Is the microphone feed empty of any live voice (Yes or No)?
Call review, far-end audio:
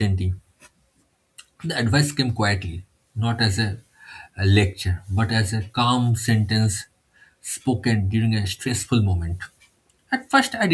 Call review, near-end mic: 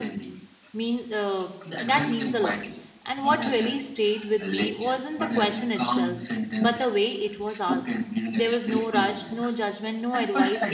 No